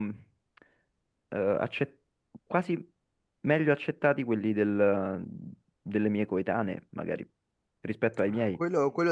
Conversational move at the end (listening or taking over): taking over